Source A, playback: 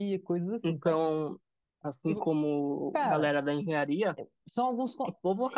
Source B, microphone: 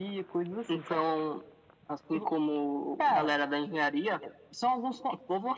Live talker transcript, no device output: none

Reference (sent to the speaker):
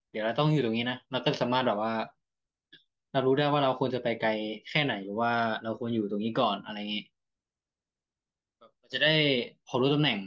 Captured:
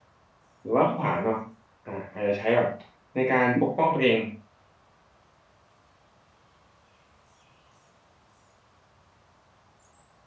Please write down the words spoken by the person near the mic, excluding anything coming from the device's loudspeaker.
หรือว่าขวานเนาะอ่าอาจจะใช้แบบในการปกป้องตัวเอง

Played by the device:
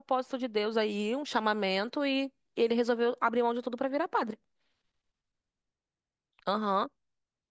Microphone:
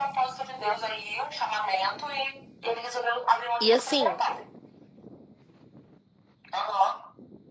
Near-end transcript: E assim,

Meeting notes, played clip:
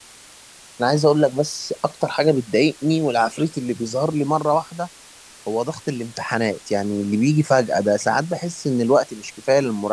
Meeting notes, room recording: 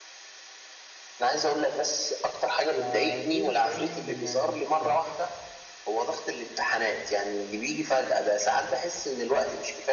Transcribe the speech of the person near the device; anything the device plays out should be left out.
فدي بتساعدني جدا يعني بت...

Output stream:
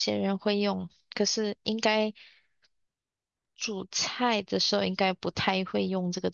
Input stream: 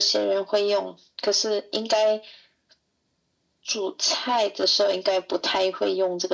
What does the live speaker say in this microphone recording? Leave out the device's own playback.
none

